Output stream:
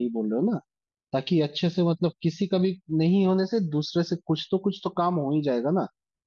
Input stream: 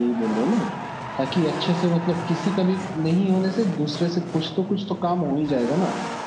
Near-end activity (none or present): none